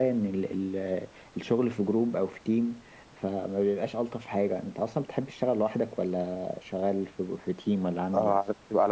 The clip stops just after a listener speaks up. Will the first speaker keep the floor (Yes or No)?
No